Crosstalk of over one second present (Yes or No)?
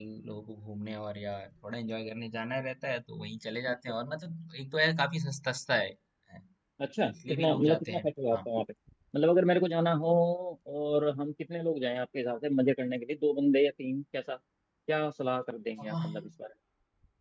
Yes